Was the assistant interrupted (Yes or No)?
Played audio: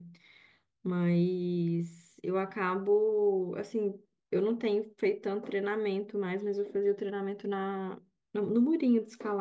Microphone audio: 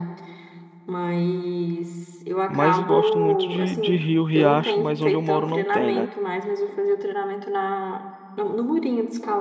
Yes